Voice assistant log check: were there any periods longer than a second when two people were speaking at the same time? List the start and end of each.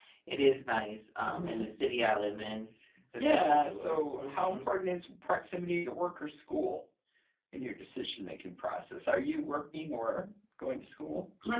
3.2-4.6

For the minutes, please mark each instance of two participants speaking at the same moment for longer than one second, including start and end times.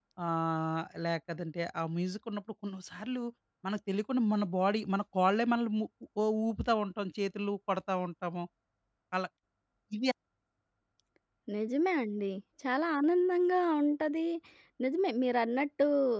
none

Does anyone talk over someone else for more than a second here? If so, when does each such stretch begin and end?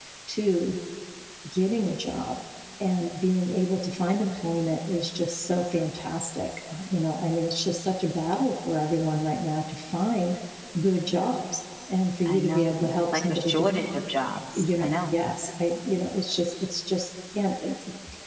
12.2-13.8

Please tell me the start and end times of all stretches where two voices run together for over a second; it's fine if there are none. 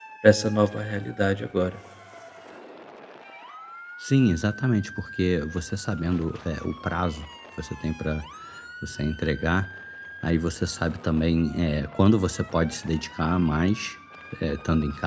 none

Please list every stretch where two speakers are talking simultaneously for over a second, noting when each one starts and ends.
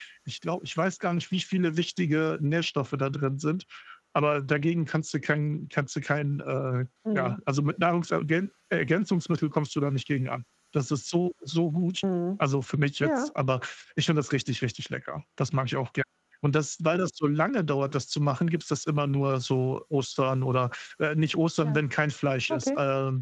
none

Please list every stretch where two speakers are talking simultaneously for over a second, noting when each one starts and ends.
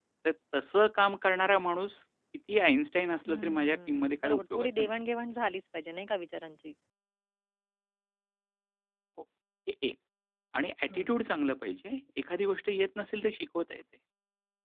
3.3-4.9

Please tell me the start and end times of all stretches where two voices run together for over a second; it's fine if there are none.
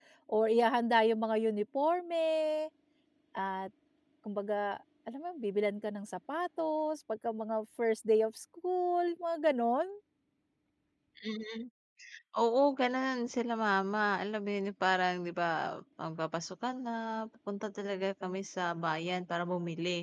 none

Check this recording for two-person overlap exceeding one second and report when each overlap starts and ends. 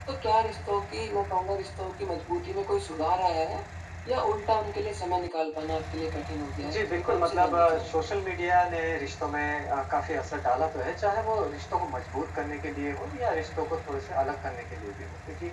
6.6-8.0

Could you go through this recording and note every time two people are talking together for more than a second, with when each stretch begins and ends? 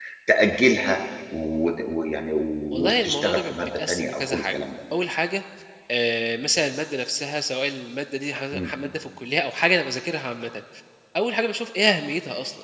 2.8-4.5

